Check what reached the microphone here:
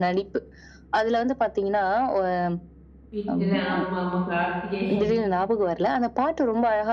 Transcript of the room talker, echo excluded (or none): வீட்ல ஆமாமா கார்த்திகை.